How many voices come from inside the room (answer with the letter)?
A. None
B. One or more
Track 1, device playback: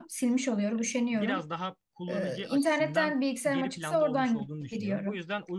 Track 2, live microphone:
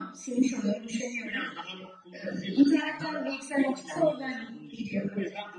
A